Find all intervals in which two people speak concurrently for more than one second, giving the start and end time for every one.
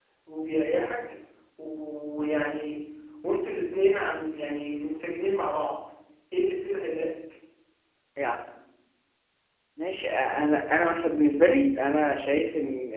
none

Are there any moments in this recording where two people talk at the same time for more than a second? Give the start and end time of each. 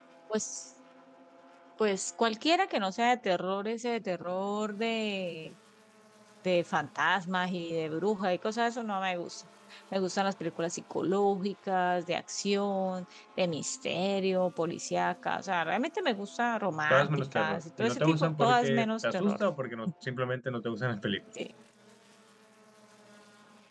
16.9-19.4

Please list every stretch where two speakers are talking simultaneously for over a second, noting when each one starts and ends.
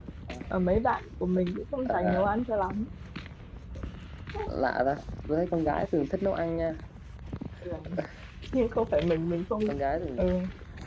none

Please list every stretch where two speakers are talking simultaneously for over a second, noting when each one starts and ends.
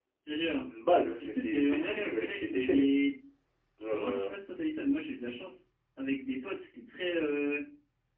1.2-2.9

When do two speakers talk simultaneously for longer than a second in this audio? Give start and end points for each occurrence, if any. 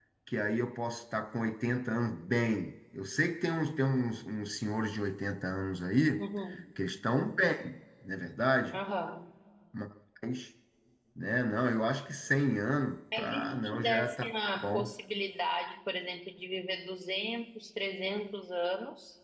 13.2-14.9

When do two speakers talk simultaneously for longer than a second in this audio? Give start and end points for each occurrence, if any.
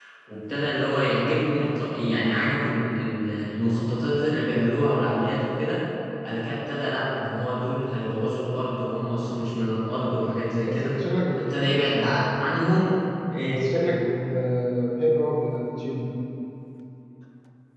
none

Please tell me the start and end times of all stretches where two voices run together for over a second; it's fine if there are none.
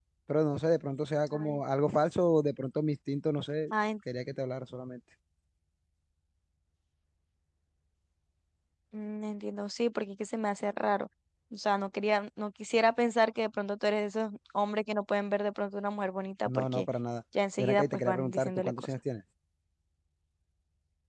17.6-18.9

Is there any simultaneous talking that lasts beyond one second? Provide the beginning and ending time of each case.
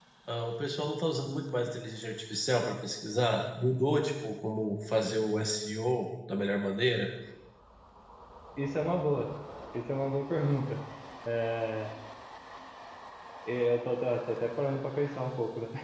none

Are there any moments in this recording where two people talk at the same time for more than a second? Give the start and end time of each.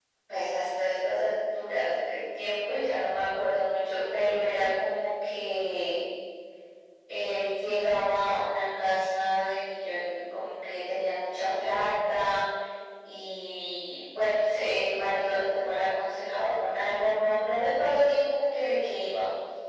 none

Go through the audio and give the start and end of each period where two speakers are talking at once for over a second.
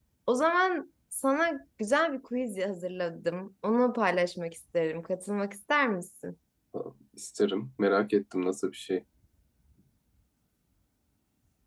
none

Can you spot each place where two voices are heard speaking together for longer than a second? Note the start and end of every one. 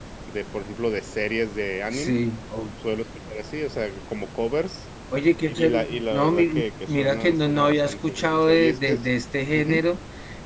5.6-9.0

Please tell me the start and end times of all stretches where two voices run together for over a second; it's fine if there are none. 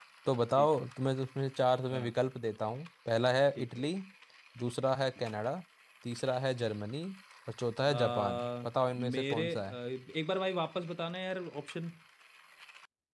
7.9-9.7

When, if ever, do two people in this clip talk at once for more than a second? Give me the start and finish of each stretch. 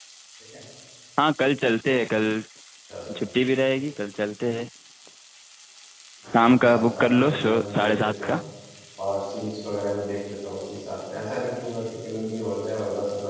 6.5-8.4

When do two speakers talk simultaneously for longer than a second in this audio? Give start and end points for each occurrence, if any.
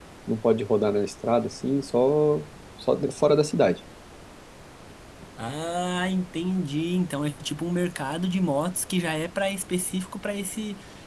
none

